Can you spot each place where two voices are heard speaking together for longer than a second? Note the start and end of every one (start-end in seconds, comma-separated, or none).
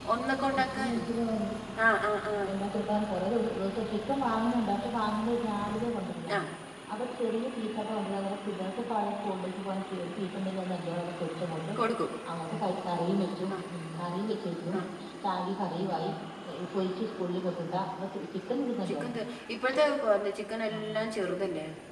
none